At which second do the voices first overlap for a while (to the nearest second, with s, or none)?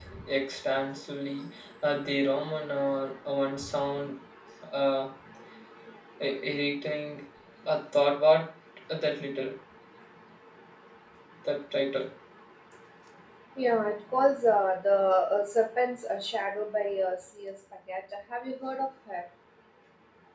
none